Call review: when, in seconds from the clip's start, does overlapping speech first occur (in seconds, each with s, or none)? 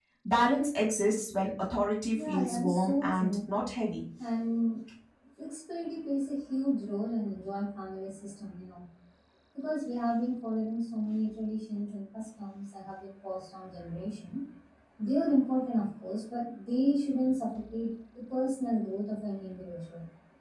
2.1 s